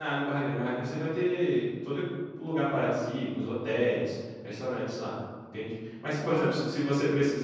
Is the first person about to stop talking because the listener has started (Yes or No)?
No